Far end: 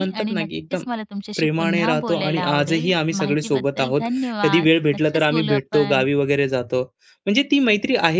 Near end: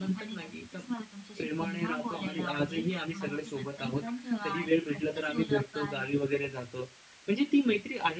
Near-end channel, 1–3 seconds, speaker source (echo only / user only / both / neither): echo only